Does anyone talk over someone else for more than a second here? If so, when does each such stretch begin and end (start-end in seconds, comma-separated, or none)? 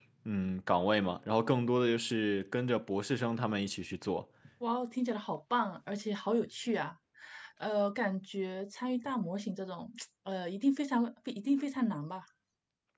none